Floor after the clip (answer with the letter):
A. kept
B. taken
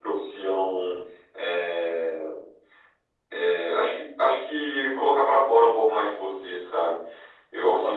A